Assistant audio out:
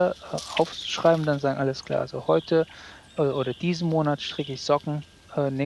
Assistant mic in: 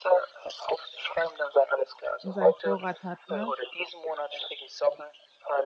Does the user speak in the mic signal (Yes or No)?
Yes